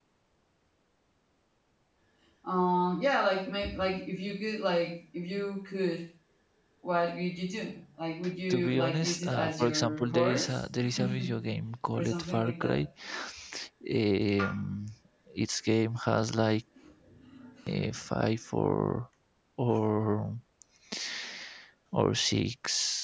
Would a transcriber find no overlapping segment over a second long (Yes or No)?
No